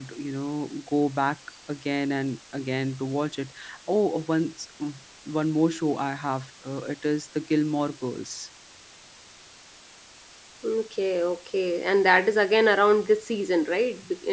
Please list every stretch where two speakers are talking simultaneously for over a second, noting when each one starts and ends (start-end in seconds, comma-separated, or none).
none